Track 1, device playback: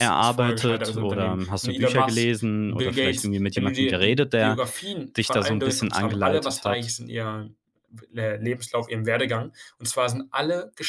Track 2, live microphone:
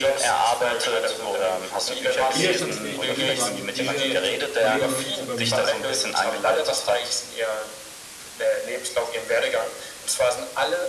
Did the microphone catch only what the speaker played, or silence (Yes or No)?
No